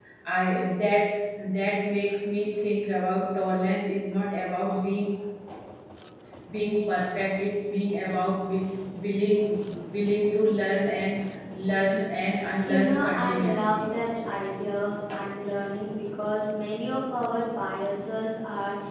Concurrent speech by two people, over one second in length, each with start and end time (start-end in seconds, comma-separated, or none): 12.6-13.9